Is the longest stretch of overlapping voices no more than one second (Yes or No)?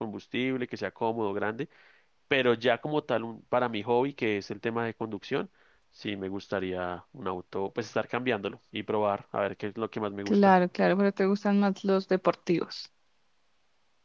Yes